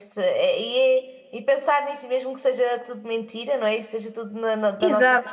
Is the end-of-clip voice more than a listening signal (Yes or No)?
Yes